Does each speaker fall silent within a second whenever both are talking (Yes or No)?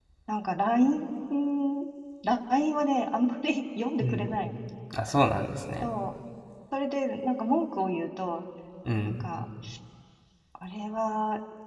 Yes